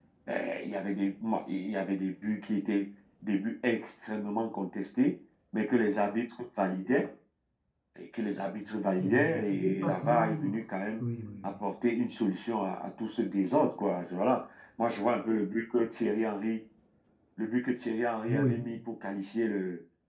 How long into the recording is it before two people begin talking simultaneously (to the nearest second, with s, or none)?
9 s